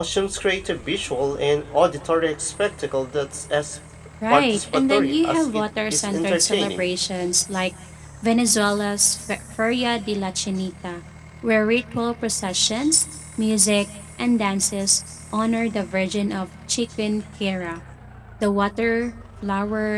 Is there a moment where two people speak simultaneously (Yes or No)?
Yes